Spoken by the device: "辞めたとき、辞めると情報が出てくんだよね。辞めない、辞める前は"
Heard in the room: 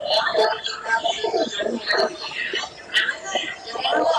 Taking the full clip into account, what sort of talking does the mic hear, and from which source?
echo only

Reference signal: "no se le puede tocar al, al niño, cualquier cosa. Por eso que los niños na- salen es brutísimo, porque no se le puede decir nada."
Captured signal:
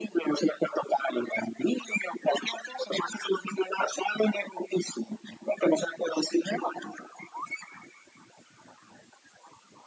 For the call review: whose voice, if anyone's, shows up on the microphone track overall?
echo only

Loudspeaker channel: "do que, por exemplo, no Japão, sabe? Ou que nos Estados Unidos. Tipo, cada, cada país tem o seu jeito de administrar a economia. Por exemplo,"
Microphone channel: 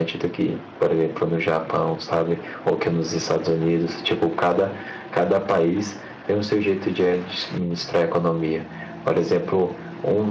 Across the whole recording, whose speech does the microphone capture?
echo only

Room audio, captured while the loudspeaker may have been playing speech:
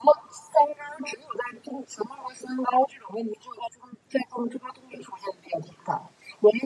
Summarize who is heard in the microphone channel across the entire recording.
echo only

